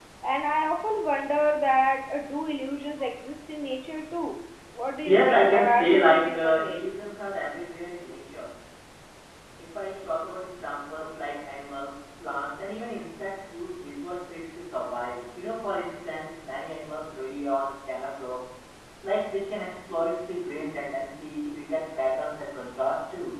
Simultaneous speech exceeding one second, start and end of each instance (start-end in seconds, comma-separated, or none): 5.0-6.8